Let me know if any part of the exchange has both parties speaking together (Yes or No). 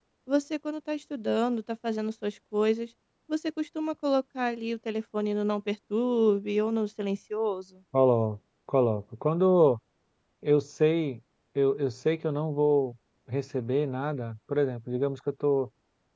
No